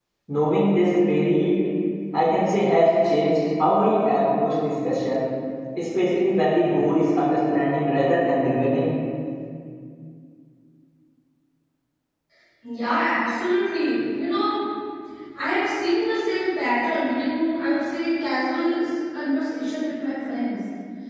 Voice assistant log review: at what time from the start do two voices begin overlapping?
none

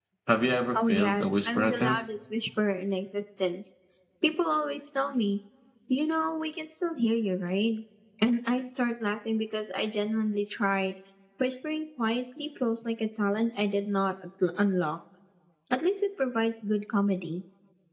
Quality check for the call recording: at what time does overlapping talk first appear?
0.7 s

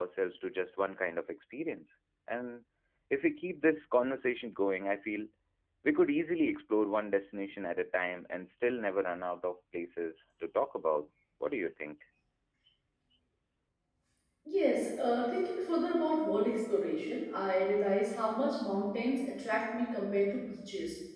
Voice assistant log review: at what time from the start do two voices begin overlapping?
none

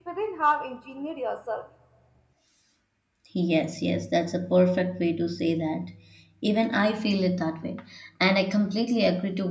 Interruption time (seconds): none

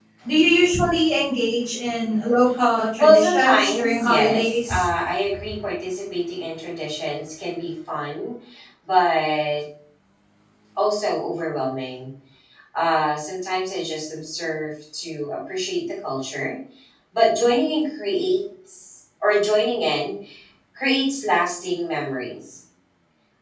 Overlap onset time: 3.0 s

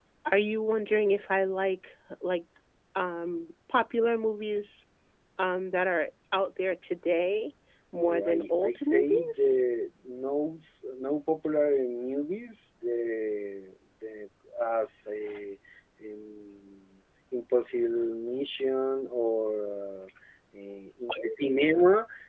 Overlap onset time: 7.9 s

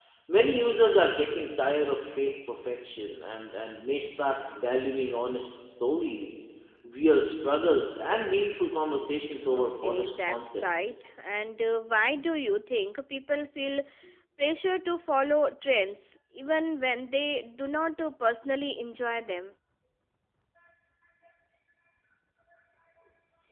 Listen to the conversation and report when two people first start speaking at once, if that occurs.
9.5 s

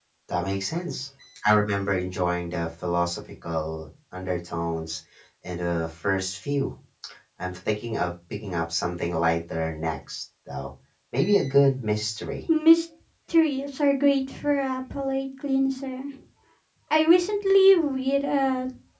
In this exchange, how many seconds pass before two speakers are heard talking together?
none

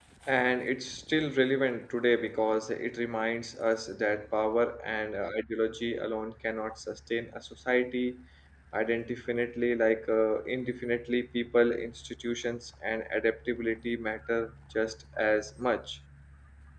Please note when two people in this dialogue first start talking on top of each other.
none

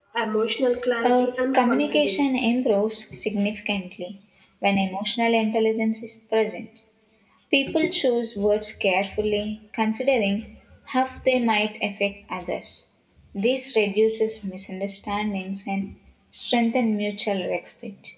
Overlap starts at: 1.0 s

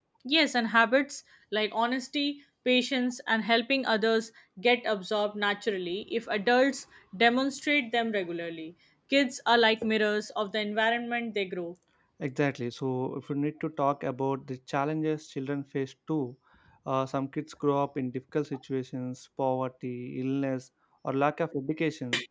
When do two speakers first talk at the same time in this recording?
none

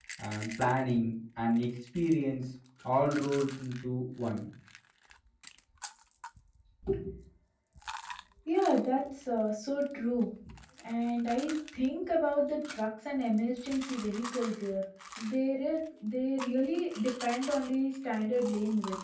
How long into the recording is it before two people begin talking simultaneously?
none

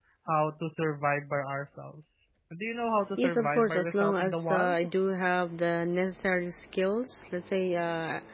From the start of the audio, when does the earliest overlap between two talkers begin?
3.2 s

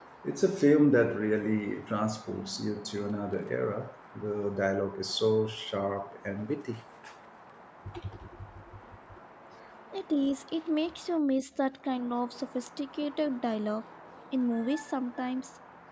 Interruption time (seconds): none

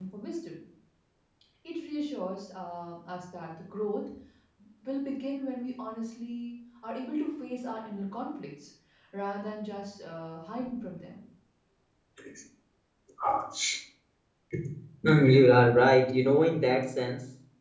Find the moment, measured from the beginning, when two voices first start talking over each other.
none

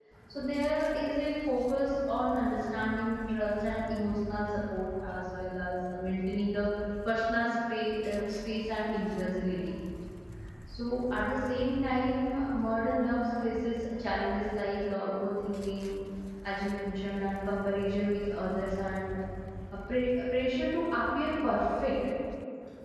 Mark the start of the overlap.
none

